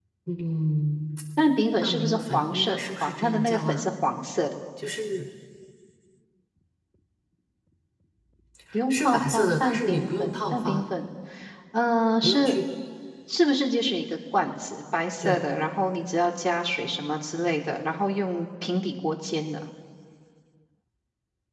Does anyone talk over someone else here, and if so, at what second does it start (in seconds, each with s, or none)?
1.8 s